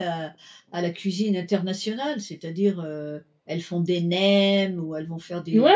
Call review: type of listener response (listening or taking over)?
taking over